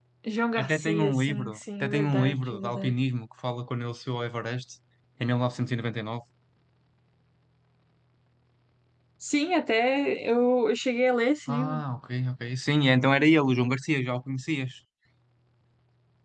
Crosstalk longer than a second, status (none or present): present